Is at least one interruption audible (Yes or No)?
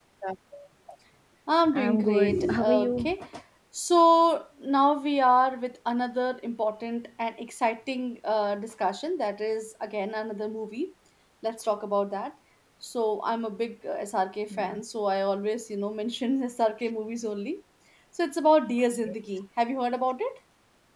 Yes